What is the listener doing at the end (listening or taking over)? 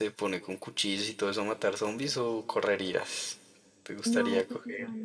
taking over